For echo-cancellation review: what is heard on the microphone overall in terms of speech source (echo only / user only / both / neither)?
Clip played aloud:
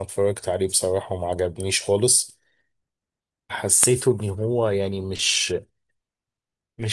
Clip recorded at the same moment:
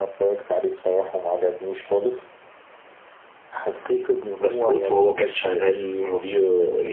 both